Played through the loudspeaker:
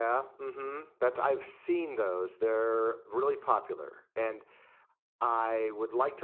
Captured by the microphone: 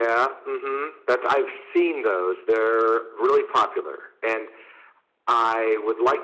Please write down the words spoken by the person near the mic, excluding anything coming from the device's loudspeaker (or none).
none